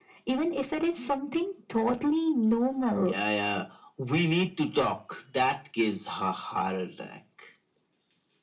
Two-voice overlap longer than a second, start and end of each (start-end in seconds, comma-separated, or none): none